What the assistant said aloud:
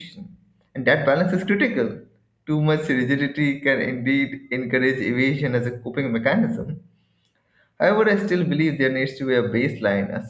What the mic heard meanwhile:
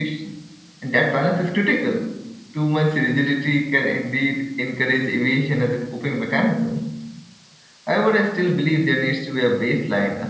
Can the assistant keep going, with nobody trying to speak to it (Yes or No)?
Yes